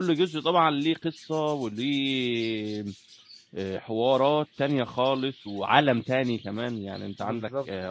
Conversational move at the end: listening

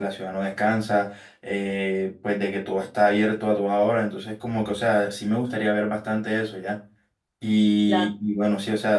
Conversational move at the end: listening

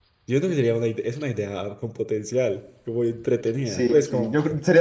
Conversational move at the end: taking over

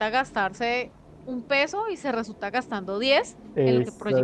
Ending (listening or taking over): taking over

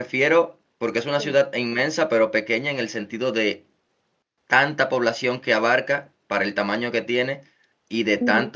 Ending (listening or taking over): listening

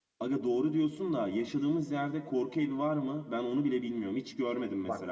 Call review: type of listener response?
taking over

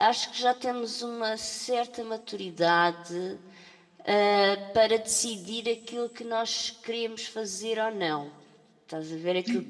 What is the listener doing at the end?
taking over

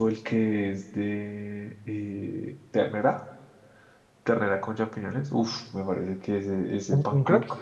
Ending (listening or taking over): listening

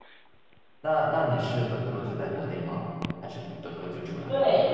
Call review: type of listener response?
taking over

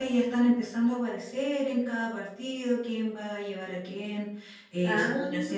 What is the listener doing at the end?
listening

